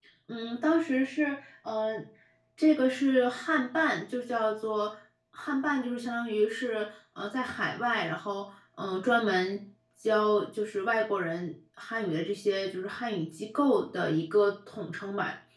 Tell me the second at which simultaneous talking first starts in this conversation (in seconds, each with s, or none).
none